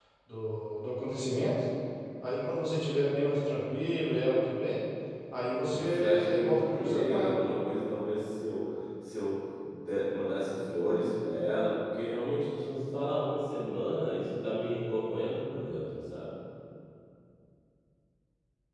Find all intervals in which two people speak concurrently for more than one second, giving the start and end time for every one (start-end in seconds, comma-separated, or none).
5.7-7.3